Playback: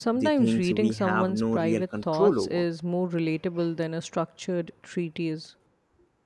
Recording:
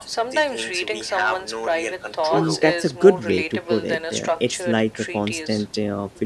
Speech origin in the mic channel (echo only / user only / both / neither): both